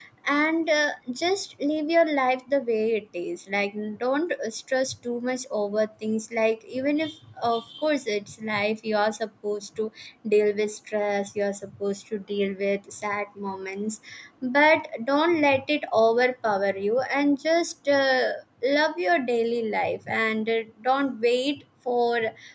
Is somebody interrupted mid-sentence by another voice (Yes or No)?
No